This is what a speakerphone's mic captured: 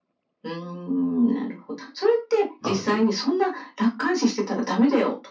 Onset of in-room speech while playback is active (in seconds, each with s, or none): 2.6 s